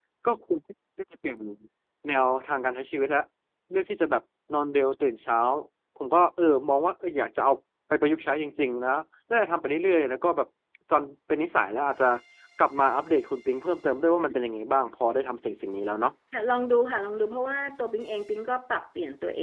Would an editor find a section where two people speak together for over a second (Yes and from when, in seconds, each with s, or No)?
No